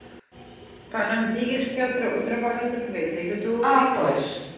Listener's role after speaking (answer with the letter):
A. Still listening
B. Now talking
B